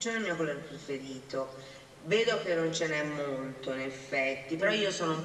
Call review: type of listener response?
listening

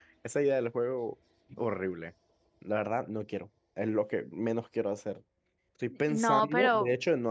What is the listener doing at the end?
taking over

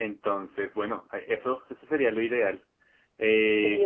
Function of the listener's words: listening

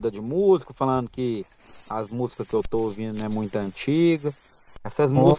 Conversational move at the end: listening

